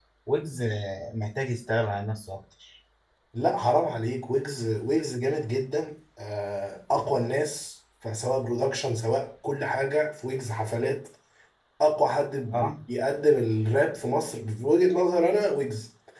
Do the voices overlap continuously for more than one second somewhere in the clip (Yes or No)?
No